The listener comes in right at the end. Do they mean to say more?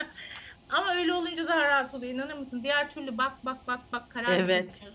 Yes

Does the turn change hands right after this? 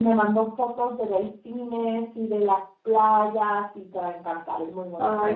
Yes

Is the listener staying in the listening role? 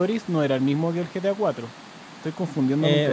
No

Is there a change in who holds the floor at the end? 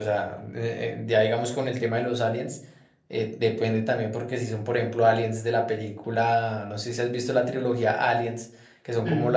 No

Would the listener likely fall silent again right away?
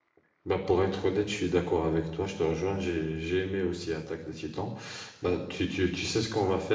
Yes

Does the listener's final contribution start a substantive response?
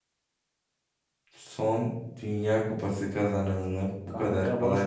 Yes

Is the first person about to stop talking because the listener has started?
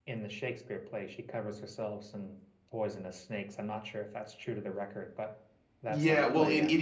Yes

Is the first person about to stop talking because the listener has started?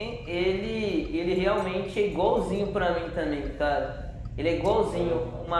No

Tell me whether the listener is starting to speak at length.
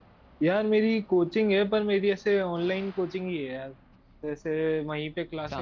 No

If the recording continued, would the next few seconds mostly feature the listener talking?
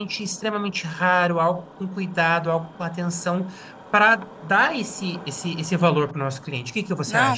Yes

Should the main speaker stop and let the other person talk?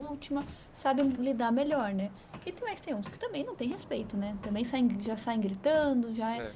No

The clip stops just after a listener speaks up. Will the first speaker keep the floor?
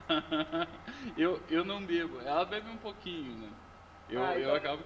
Yes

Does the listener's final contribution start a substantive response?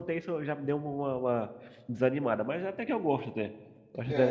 Yes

